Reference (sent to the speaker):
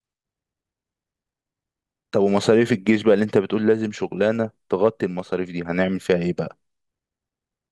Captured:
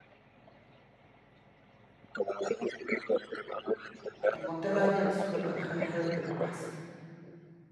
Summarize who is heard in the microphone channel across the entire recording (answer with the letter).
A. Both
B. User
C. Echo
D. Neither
A